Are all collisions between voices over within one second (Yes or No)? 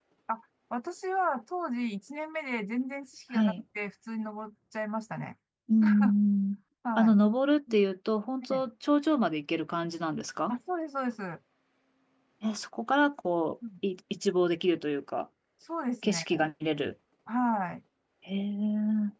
Yes